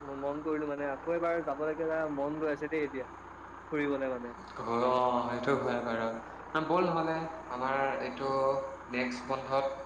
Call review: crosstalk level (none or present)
none